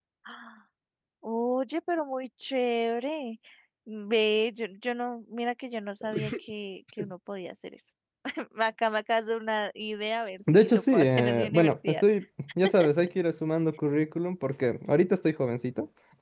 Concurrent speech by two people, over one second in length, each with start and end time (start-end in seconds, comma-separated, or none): 10.5-12.0